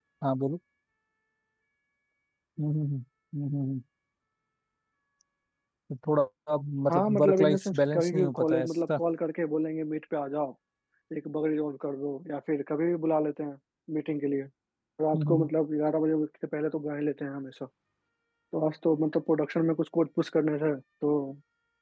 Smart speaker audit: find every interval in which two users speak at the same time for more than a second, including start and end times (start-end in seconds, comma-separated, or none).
6.9-9.0